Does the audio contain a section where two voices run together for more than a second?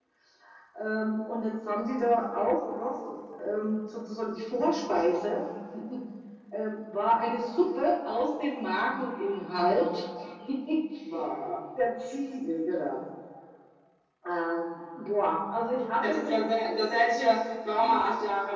No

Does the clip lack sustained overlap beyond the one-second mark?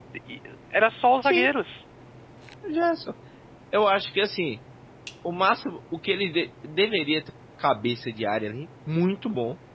Yes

